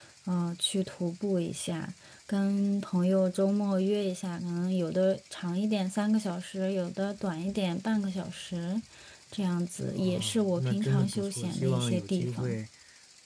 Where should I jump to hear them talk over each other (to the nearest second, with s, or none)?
10 s